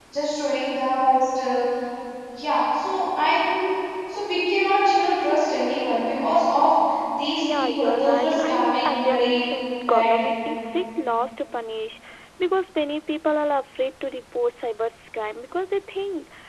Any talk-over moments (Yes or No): Yes